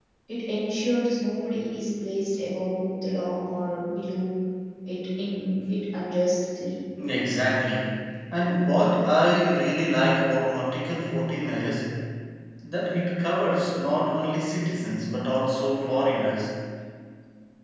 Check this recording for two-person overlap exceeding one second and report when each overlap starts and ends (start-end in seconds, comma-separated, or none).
none